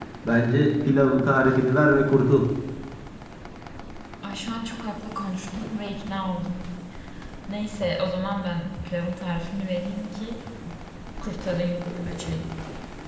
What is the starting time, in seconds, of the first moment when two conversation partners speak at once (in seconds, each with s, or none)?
none